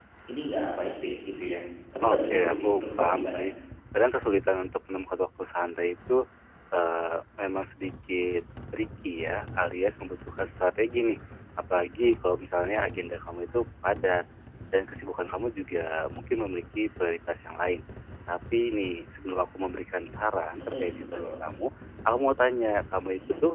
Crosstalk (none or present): present